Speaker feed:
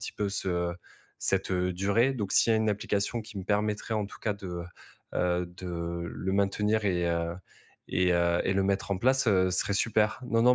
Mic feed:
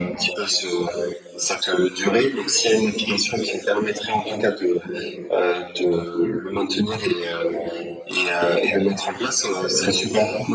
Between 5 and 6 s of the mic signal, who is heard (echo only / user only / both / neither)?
echo only